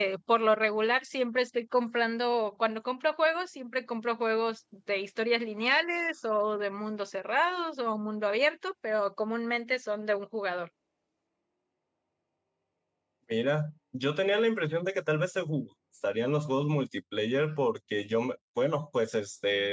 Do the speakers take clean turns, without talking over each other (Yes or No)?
Yes